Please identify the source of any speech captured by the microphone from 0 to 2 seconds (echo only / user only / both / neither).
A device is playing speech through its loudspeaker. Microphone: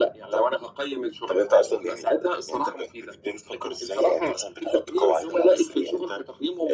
echo only